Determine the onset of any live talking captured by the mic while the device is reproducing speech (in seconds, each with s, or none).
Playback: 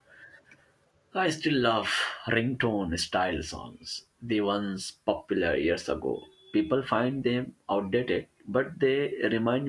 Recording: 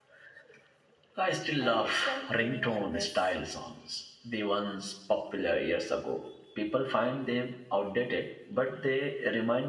1.6 s